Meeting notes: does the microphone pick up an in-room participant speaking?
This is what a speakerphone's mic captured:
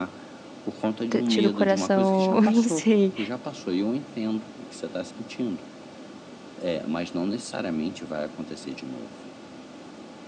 Yes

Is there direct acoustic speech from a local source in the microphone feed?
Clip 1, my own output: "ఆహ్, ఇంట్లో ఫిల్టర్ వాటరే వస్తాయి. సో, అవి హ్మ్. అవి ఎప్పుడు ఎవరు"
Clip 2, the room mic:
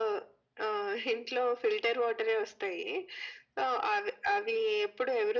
No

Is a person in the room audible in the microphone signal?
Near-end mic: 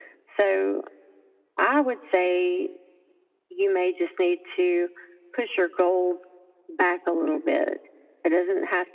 No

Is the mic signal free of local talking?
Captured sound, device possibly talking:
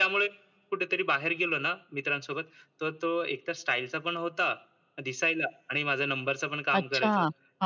No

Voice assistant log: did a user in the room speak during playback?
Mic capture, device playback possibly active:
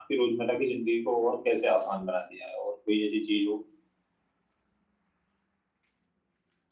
Yes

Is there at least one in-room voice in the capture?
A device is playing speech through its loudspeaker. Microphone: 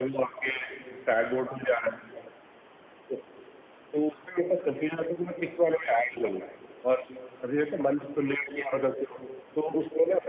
No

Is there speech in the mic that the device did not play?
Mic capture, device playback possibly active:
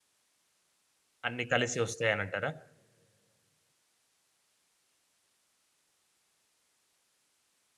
Yes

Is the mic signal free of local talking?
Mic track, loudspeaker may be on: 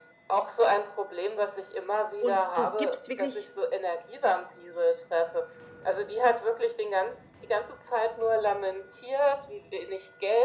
No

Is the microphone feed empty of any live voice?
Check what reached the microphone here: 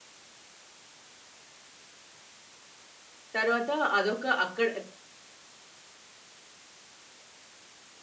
No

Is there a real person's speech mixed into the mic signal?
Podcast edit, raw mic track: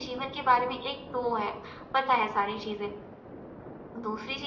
No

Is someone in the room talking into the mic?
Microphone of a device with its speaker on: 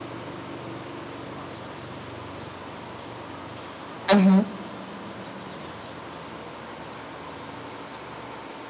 Yes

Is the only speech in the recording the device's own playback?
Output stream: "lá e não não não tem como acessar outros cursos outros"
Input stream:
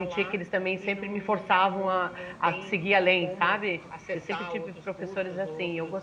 No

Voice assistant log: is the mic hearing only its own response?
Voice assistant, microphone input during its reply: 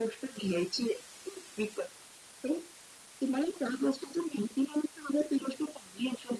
Yes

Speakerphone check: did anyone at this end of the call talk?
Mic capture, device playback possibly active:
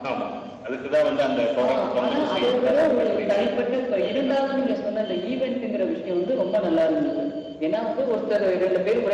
No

